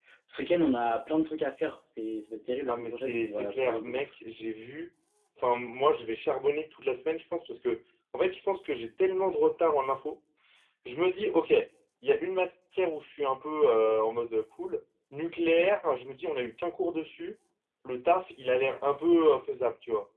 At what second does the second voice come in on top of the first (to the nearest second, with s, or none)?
3 s